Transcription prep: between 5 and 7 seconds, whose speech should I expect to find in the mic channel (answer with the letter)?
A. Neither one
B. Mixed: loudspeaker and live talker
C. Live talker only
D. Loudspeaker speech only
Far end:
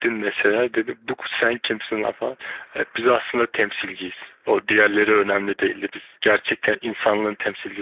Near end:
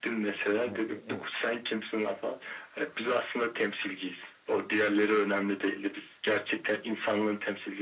D